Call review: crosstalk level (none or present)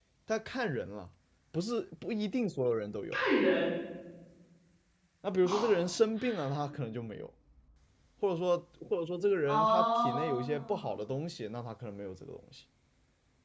present